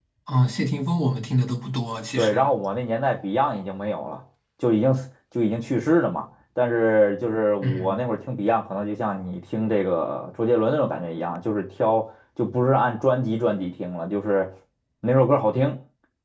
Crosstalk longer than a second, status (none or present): none